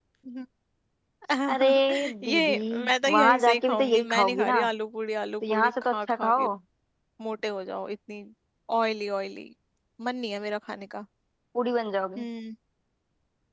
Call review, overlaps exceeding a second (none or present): present